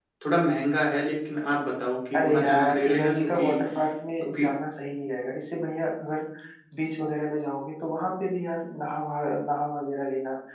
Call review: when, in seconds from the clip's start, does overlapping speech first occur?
2.1 s

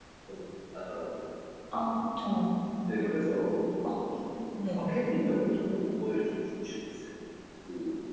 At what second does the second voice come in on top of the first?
none

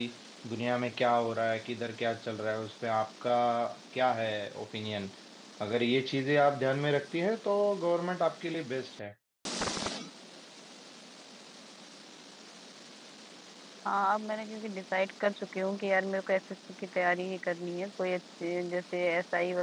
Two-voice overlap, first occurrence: none

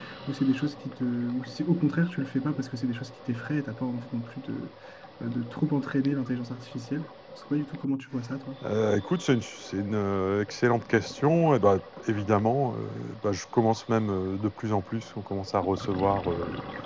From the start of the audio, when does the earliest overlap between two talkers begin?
none

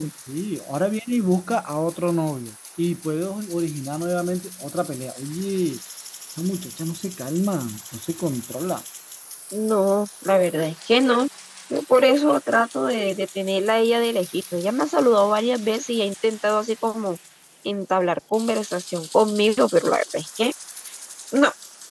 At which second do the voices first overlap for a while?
none

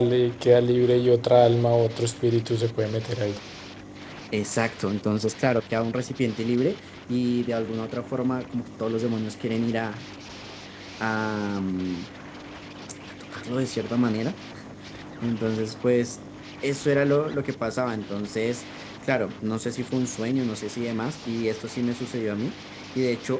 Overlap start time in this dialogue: none

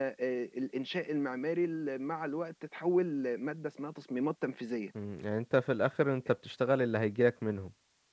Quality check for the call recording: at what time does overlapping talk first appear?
none

